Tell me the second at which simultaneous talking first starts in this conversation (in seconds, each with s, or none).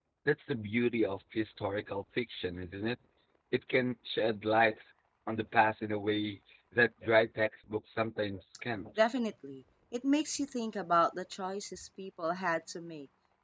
none